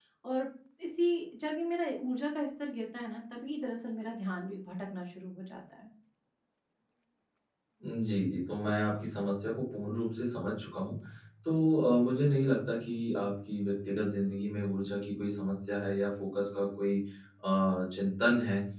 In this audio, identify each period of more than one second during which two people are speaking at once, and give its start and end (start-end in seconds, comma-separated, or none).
none